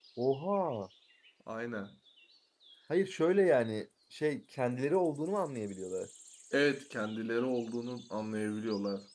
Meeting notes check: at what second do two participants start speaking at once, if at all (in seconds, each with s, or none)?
none